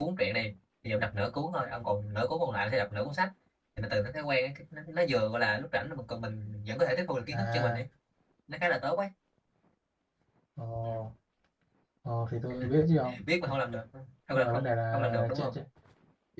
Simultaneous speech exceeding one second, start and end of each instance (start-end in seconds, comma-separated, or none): 14.3-15.6